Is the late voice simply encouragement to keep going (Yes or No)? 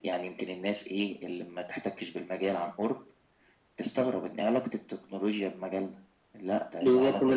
No